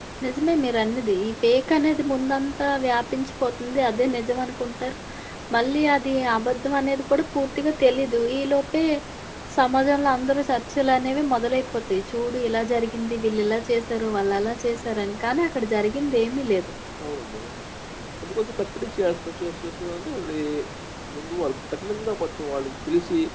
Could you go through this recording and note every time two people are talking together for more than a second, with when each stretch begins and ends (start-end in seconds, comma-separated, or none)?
none